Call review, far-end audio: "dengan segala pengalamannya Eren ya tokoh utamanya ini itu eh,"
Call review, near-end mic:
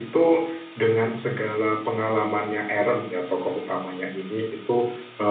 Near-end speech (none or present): none